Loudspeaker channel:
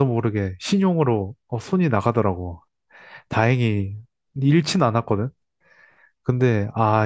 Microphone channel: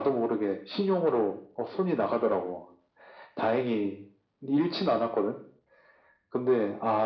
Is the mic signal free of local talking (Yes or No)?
Yes